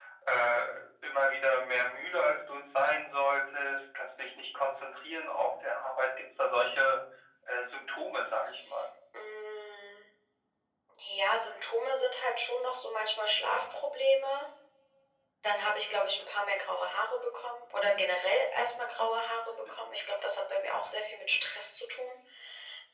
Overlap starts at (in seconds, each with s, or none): none